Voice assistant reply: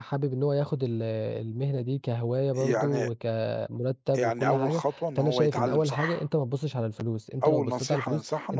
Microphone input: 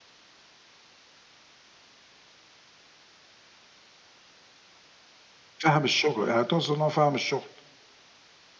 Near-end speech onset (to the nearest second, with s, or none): 6 s